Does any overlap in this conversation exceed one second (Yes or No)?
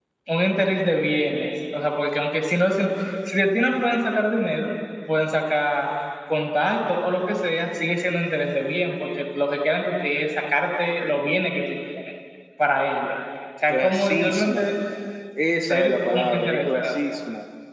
Yes